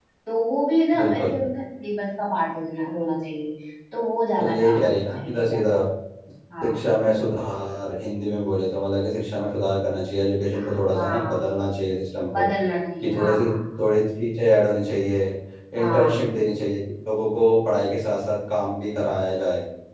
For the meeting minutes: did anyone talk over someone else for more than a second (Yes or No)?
Yes